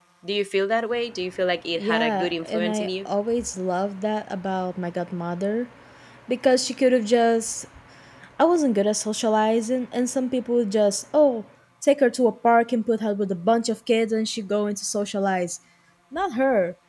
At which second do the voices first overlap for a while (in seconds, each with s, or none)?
1.8 s